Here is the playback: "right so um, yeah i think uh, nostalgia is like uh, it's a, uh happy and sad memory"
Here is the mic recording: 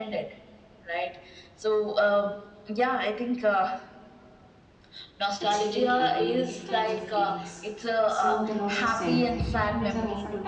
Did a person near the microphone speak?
Yes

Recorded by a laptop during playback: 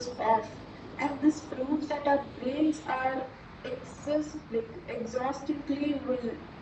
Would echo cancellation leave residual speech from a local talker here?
No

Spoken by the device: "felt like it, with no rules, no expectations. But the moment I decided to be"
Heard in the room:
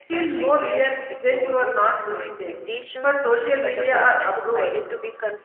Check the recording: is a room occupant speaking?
Yes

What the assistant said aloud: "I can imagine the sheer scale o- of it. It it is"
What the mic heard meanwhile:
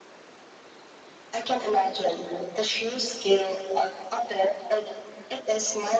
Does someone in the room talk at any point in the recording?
No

